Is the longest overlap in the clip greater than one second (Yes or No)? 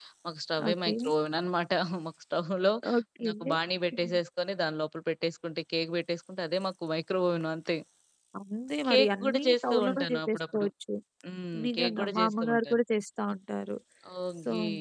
Yes